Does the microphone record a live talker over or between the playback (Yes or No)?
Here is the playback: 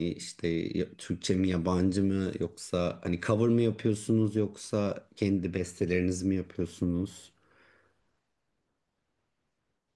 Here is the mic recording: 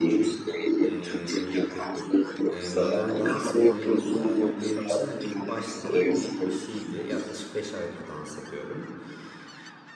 Yes